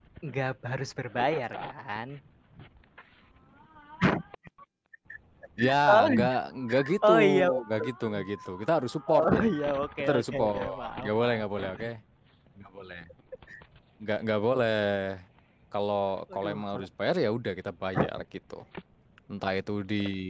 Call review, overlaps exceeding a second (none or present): present